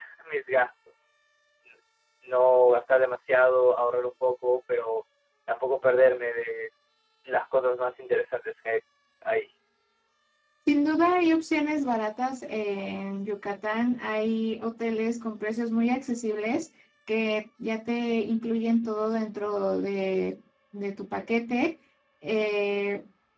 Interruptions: none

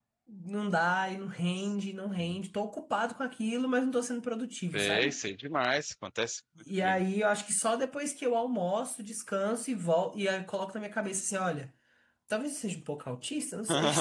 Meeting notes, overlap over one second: none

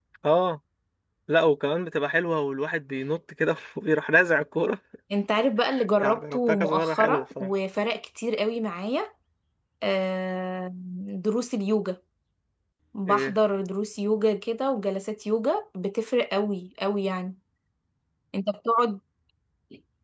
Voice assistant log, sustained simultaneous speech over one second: present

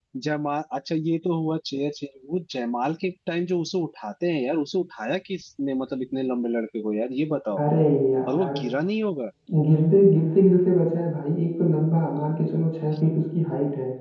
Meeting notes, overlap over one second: none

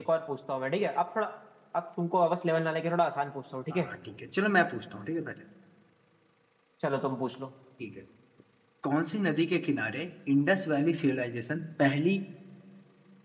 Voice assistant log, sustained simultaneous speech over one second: none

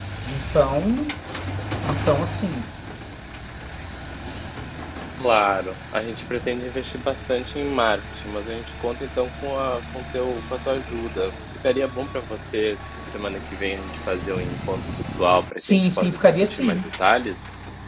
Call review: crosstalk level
present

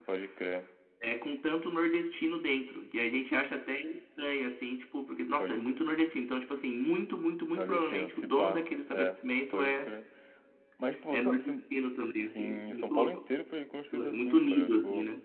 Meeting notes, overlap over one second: present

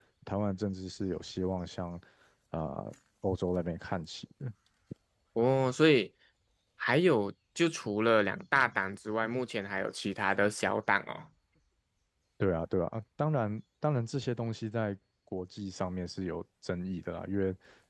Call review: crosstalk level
none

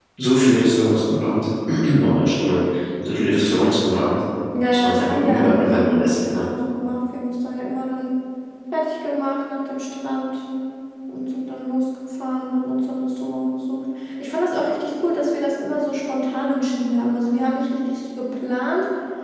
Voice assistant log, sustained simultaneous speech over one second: present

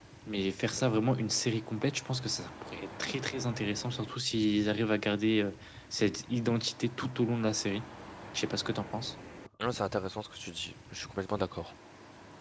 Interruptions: none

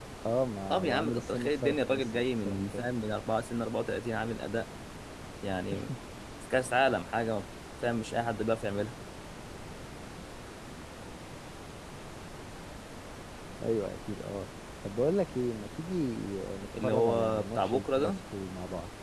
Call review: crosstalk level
present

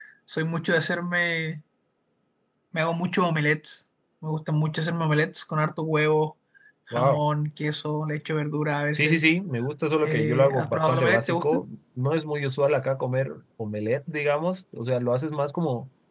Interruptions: present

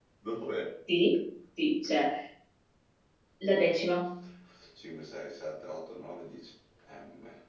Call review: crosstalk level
none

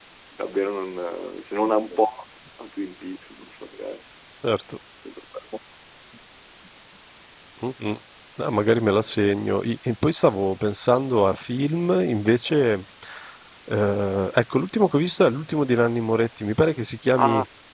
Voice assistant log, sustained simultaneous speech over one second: none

